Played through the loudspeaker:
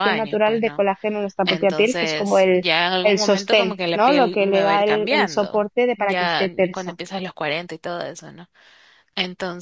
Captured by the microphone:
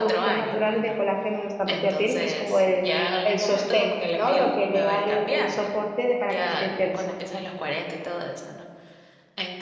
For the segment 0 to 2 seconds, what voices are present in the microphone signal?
echo only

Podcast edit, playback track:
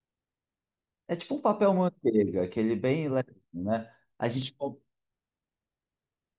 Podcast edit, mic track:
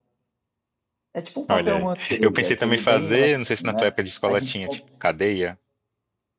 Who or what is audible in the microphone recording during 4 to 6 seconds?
both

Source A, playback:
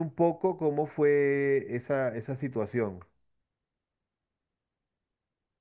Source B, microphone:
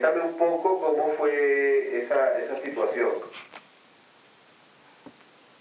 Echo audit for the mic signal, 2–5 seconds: echo only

